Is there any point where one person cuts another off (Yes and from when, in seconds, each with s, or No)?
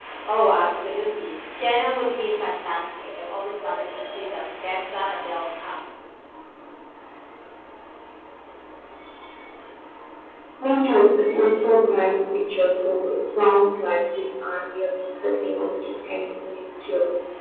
No